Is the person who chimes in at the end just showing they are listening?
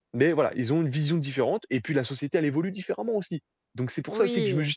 Yes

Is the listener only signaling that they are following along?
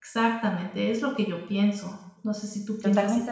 No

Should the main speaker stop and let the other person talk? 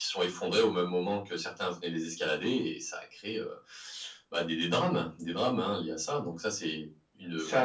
Yes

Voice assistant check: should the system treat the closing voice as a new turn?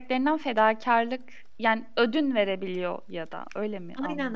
Yes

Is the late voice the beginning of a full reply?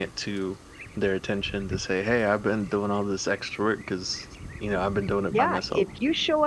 Yes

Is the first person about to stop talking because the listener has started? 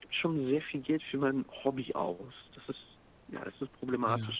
Yes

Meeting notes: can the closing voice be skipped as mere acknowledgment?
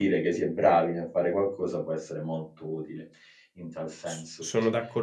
No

